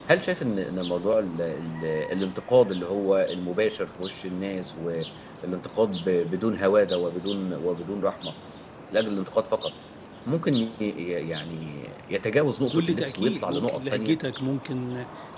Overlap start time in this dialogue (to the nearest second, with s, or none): 13 s